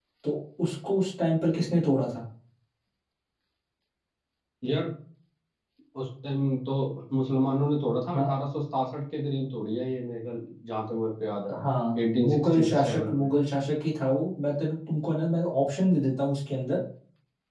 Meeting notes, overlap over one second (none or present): present